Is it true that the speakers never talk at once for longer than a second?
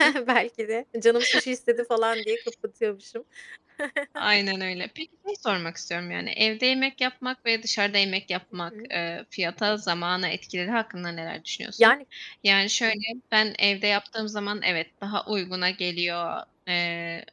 Yes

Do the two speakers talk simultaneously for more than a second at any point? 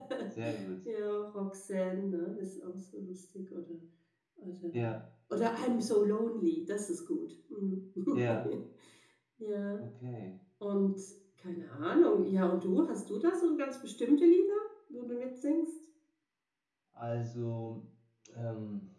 No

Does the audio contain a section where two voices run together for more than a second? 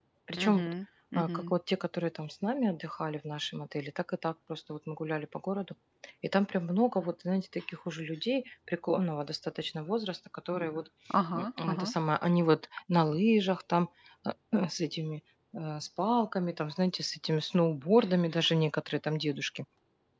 No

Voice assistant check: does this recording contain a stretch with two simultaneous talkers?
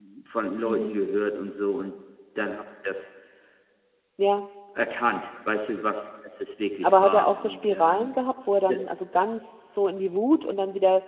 Yes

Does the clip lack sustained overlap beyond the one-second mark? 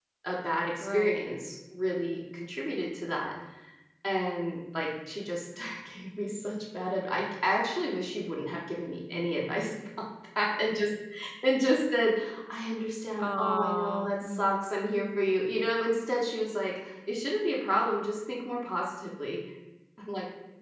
No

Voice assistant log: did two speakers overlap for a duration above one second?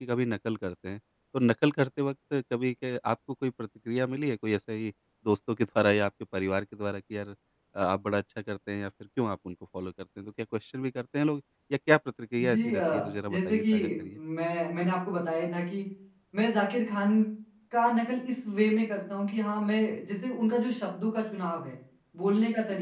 Yes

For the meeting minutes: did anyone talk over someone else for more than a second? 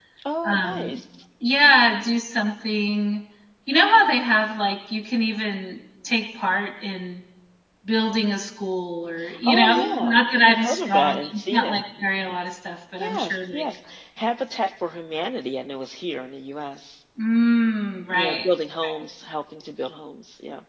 Yes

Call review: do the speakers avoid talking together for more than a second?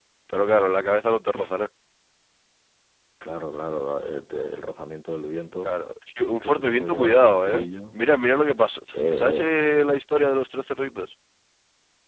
No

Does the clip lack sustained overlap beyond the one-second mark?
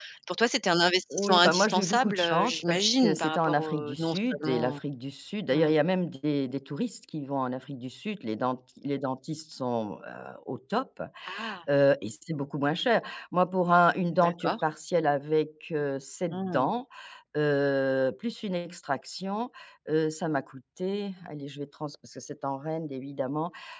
No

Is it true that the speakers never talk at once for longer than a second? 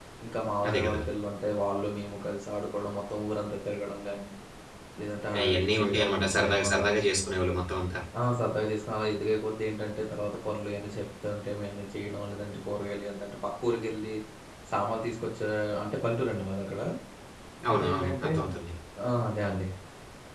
No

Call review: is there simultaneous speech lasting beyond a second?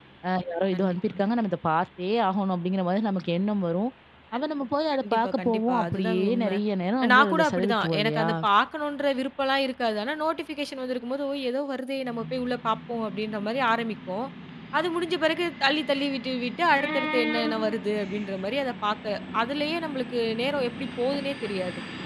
Yes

